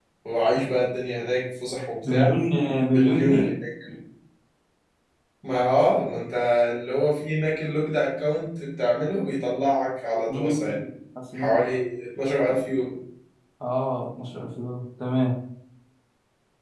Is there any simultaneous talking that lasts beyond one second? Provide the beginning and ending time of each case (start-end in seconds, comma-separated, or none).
none